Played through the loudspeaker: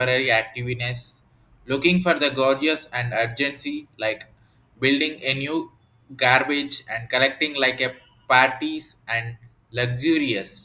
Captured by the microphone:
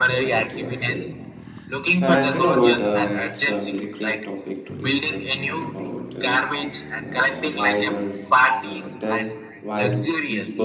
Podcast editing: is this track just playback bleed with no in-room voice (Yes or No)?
No